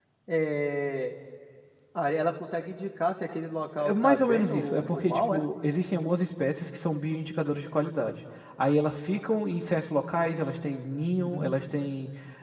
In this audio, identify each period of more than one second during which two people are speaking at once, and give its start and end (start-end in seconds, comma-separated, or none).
3.8-5.4